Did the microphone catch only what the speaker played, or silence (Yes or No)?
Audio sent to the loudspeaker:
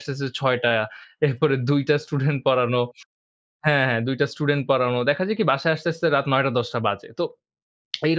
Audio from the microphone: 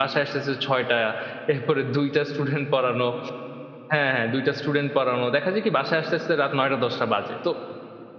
Yes